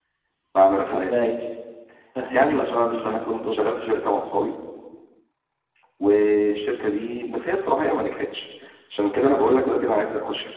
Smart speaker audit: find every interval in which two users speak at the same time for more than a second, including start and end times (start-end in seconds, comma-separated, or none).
2.3-3.7